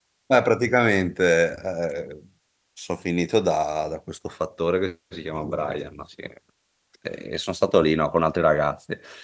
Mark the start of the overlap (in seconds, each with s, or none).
none